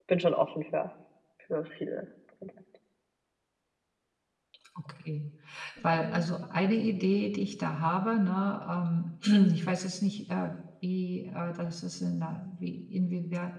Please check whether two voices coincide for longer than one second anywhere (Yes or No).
No